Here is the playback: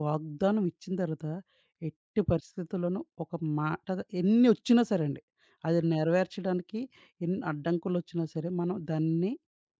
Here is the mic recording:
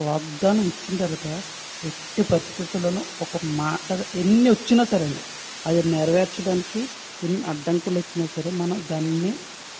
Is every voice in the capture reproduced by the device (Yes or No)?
Yes